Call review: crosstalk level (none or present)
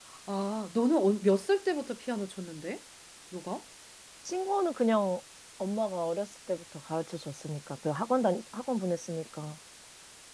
none